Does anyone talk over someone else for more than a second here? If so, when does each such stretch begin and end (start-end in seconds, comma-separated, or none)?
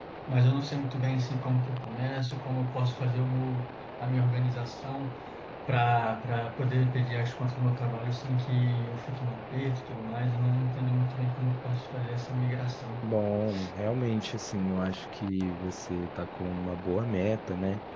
none